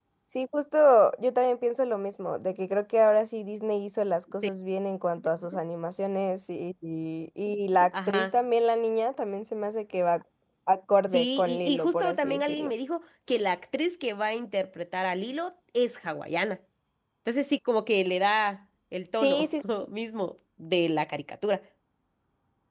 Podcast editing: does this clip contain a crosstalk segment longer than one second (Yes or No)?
Yes